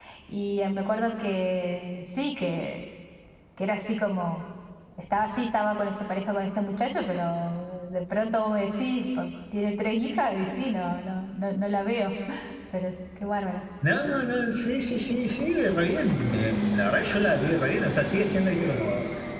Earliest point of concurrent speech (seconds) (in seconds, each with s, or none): none